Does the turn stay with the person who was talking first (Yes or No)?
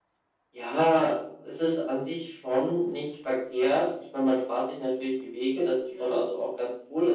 Yes